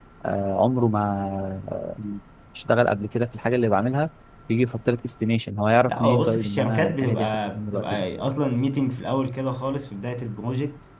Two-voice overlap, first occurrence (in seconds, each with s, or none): 5.8 s